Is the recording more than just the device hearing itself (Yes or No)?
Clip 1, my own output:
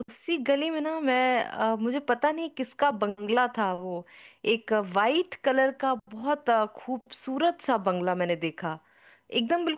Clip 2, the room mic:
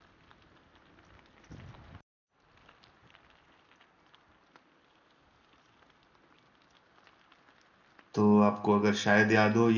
Yes